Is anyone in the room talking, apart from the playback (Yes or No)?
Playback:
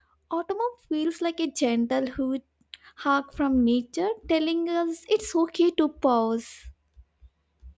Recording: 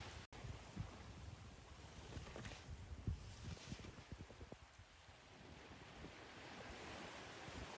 No